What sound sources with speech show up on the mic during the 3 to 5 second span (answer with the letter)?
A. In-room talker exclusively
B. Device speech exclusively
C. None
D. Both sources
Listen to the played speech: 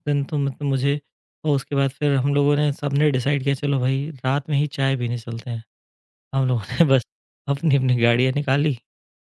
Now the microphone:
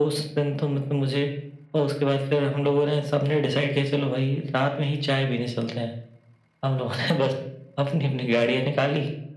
B